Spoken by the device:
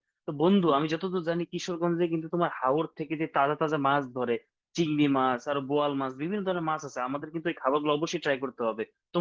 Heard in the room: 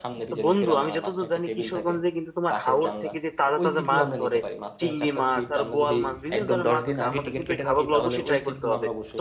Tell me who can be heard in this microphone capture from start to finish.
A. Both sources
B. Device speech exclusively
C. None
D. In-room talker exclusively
A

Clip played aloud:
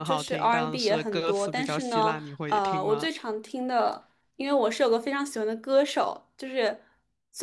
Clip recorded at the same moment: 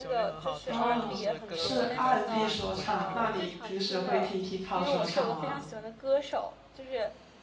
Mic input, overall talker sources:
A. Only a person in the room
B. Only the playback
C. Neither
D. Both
D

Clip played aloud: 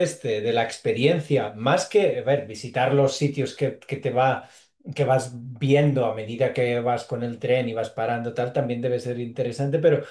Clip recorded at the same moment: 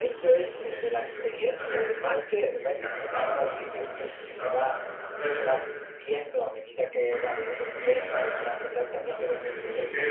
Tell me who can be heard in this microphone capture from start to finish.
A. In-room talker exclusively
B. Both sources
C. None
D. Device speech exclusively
B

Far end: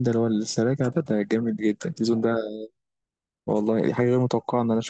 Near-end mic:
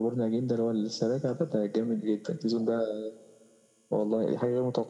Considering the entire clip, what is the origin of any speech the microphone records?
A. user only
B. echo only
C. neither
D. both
B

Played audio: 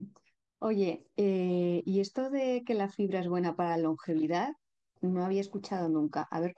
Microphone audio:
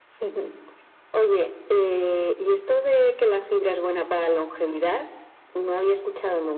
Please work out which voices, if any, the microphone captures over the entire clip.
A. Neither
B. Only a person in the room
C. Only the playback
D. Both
C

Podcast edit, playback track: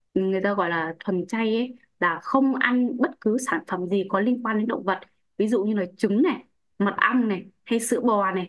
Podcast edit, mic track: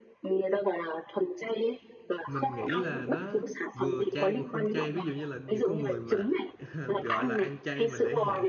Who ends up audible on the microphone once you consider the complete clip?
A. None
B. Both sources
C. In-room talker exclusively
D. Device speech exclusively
B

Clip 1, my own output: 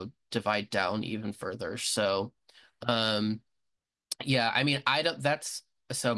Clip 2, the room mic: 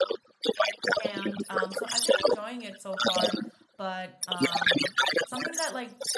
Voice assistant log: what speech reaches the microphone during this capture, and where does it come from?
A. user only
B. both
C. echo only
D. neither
B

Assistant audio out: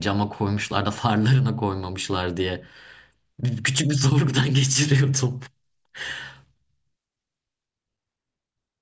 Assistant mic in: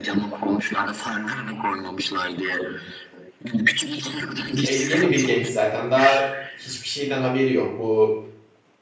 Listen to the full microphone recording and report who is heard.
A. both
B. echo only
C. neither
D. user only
A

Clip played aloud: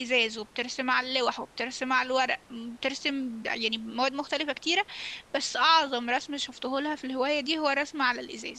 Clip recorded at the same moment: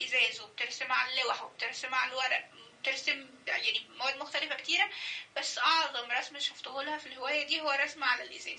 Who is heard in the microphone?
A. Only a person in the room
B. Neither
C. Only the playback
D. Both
C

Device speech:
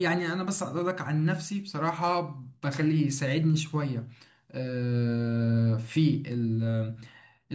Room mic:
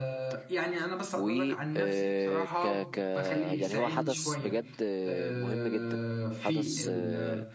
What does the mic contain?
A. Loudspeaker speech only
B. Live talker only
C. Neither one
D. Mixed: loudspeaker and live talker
D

